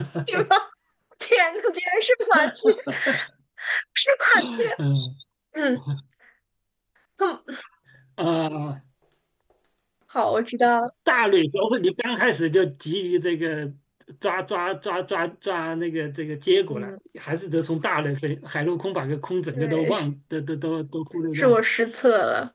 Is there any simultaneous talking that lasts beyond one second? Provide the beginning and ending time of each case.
none

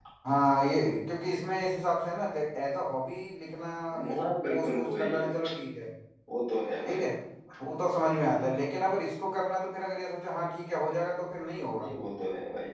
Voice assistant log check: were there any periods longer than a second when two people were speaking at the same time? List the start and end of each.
4.1-5.3

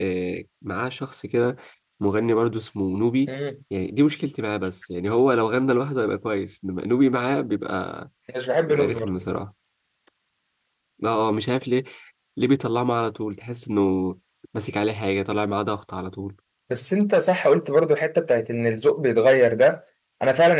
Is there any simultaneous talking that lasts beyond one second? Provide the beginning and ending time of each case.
none

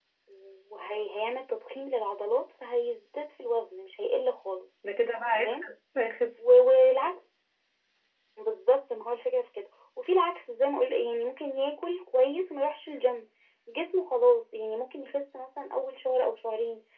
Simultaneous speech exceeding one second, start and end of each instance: none

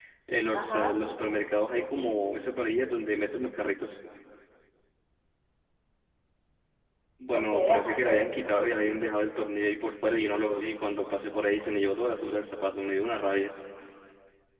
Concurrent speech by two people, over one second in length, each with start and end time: 7.3-8.6

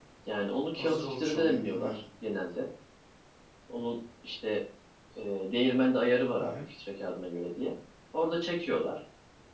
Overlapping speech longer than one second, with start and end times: 0.8-2.0

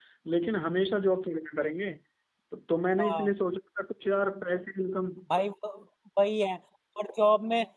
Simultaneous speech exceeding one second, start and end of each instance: none

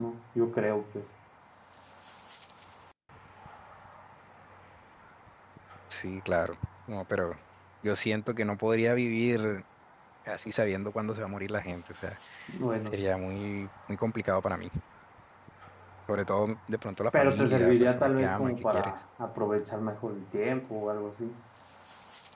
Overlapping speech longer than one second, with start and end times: 17.1-18.9

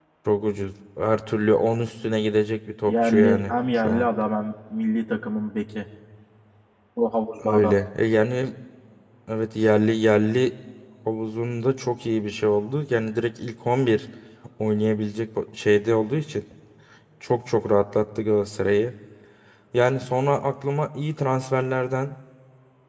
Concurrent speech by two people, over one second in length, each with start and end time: 2.9-4.1

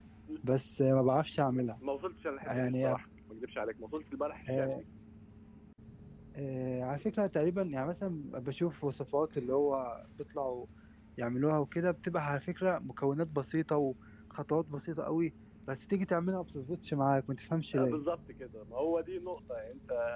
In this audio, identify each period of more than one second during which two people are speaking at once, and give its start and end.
none

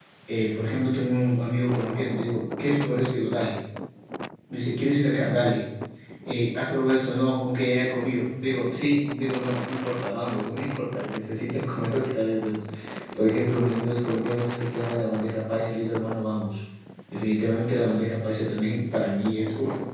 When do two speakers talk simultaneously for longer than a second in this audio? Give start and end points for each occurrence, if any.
none

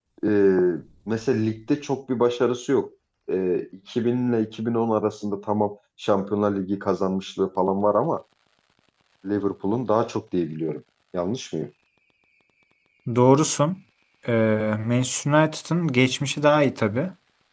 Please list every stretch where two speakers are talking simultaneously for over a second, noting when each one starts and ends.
none

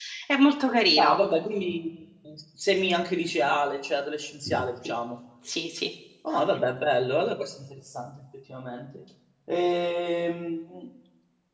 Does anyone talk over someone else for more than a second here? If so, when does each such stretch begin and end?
none

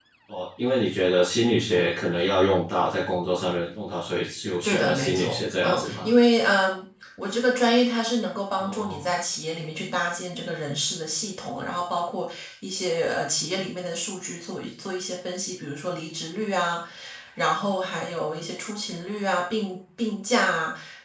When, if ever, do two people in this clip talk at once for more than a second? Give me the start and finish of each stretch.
4.6-6.1

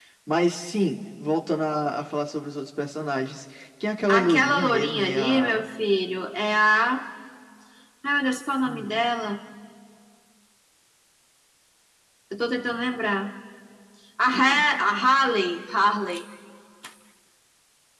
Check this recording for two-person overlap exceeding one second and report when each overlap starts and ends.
4.1-5.6

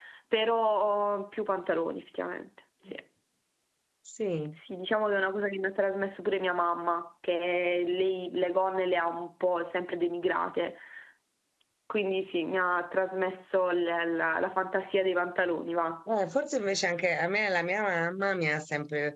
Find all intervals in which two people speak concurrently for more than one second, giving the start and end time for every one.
none

